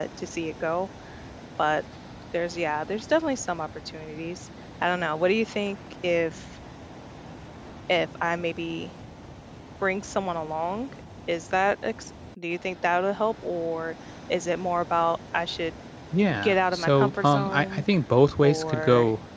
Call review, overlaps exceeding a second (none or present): present